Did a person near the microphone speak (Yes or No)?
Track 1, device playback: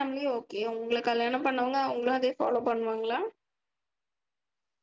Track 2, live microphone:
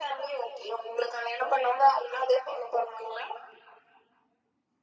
No